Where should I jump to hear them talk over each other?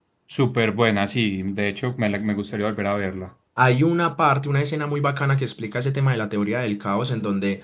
none

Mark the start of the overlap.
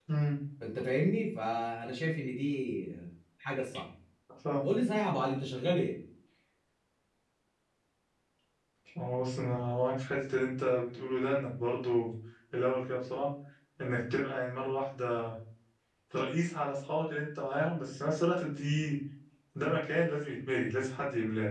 none

